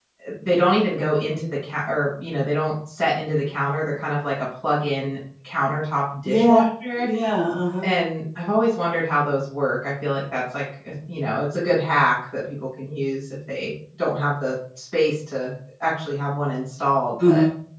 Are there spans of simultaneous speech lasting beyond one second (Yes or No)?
No